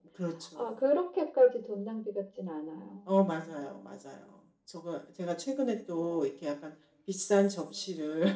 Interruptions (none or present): none